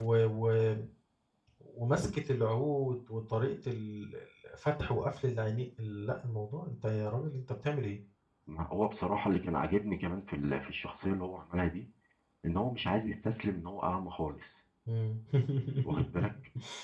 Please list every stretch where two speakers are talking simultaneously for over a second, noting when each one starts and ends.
none

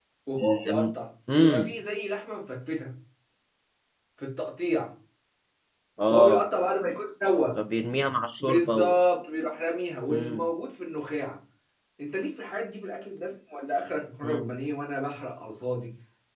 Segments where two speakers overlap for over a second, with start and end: none

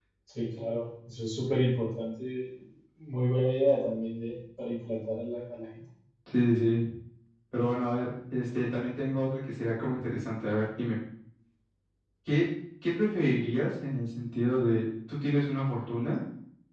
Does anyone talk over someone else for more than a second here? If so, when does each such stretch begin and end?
none

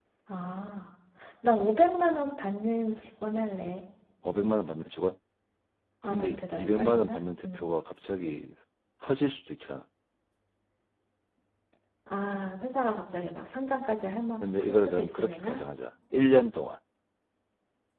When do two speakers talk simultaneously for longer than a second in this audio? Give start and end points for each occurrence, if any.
6.0-7.7, 14.4-15.6

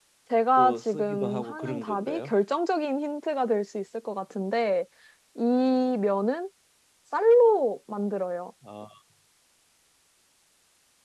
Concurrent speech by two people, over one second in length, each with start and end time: 0.6-2.3

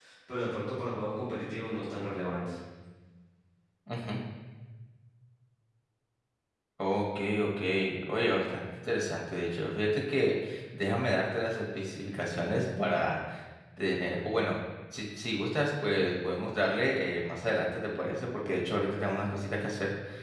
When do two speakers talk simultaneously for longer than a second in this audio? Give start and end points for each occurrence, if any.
none

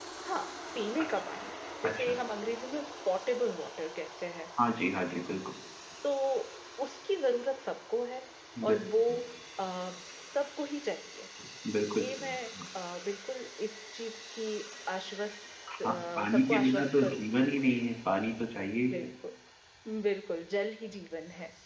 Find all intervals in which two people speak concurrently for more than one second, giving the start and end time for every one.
15.8-17.5

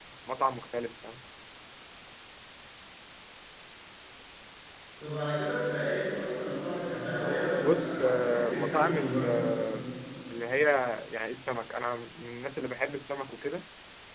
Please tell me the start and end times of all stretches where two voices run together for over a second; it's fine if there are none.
7.5-9.4

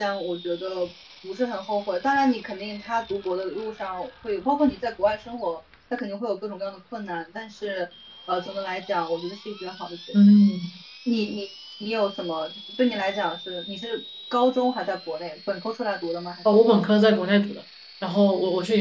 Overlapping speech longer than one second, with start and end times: none

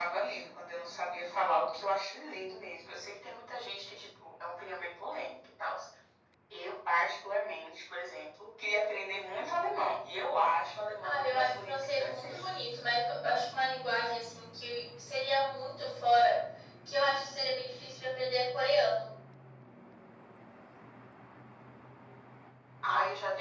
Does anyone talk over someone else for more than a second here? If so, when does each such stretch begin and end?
11.0-12.4

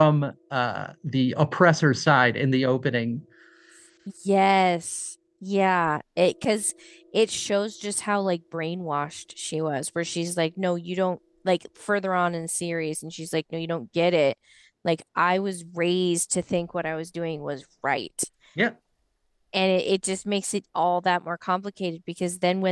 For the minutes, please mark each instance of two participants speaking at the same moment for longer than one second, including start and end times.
none

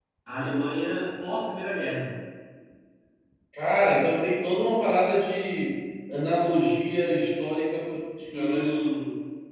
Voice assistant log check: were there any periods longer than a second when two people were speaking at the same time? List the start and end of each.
none

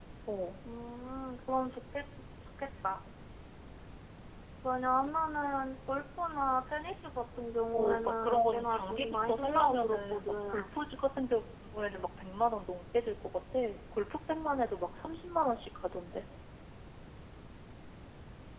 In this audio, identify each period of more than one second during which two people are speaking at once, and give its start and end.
7.7-10.7

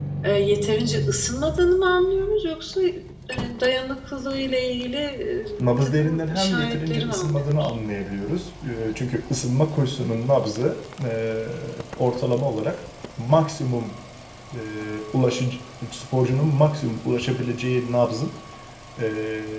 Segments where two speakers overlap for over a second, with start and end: 5.6-7.7

